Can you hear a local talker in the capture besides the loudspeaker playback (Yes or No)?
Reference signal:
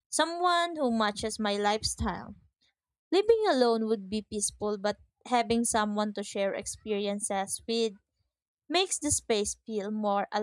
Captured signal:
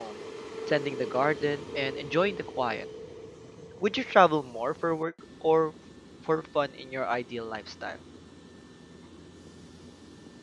Yes